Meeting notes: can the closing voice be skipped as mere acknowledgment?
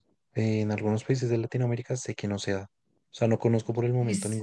Yes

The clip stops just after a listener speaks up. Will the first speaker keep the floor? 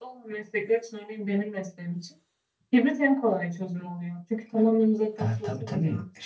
No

